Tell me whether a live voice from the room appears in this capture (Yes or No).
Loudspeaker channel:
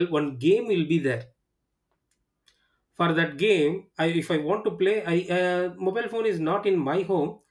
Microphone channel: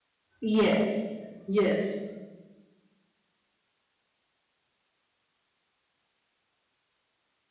Yes